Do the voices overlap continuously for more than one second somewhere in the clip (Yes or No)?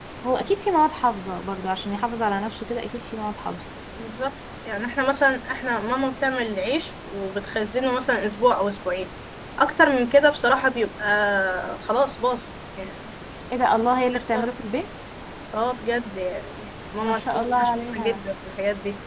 Yes